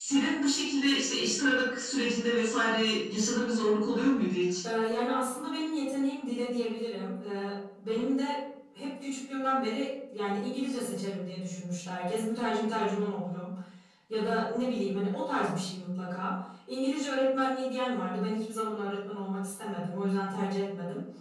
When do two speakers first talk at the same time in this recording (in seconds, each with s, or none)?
none